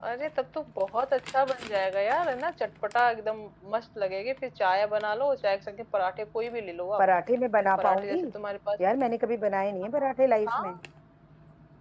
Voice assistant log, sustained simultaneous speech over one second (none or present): none